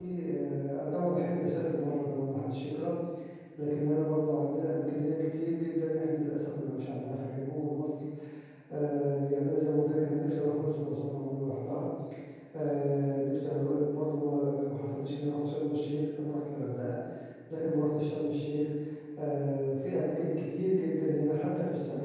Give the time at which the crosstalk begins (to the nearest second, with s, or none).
none